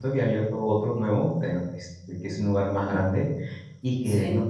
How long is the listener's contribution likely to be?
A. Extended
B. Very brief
B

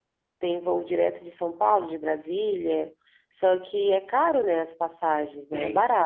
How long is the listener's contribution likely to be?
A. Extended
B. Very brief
A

